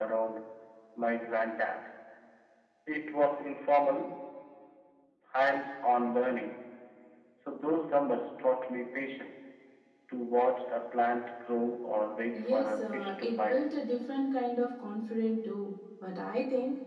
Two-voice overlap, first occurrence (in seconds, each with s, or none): 12.3 s